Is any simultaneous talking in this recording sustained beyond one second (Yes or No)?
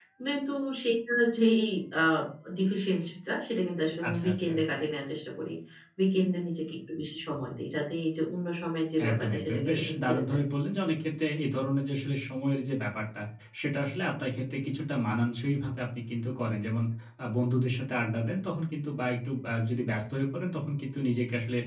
Yes